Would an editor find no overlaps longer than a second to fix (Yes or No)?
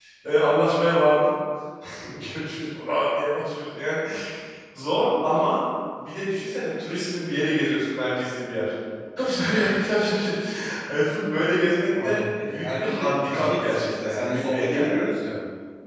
No